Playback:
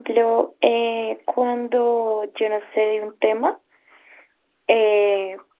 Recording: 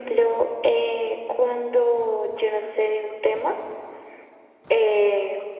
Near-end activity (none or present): none